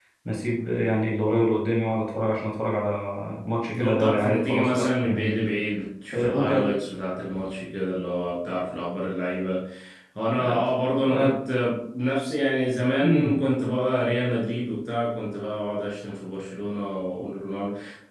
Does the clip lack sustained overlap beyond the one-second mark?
No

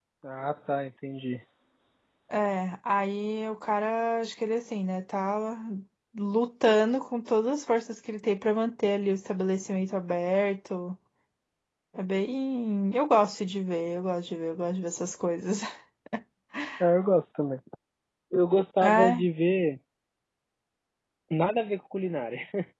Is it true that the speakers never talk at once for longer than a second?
Yes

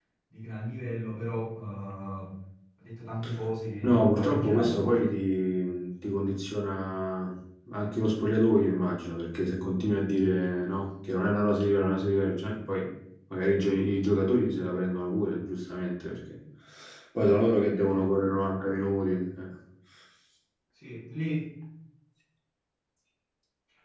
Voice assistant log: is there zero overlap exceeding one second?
No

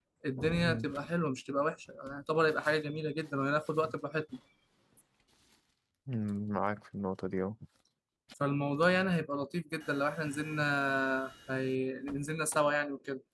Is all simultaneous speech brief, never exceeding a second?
Yes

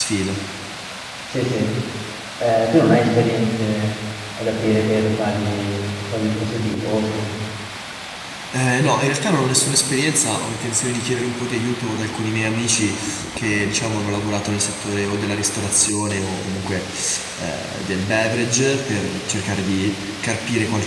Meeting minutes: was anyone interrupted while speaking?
No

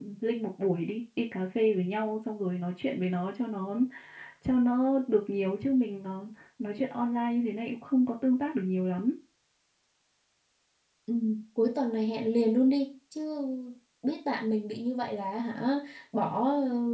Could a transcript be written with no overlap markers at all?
Yes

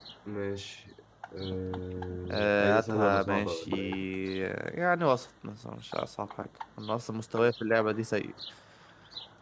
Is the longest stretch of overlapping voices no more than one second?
No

